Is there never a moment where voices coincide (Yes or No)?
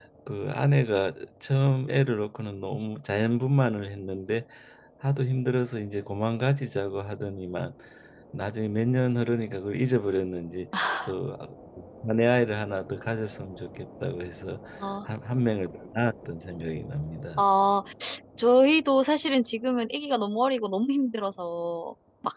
Yes